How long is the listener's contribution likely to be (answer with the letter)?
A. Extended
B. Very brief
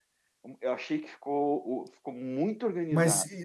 A